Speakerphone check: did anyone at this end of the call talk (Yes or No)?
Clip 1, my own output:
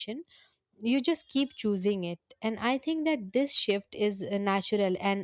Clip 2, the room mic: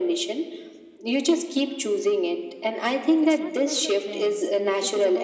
Yes